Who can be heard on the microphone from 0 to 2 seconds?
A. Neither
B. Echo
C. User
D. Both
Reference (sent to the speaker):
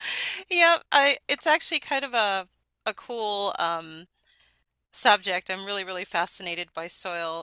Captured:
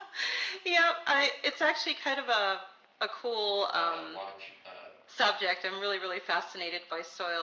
B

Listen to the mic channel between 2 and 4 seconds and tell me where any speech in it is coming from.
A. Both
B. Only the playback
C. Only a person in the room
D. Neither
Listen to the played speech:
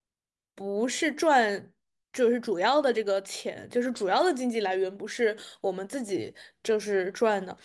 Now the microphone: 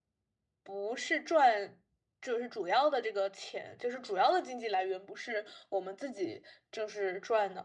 B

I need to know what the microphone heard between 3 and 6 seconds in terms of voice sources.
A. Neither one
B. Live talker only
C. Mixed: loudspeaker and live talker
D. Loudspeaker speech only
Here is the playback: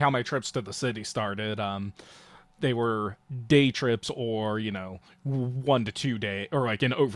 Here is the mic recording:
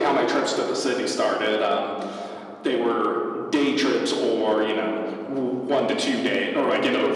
D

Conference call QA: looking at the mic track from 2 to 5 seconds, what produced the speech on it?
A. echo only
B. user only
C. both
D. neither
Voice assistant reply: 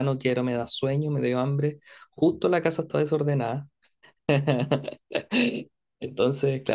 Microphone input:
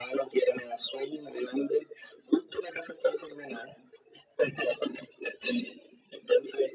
A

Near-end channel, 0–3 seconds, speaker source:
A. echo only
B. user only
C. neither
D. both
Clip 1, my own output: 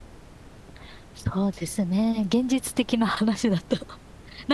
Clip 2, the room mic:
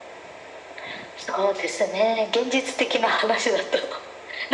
A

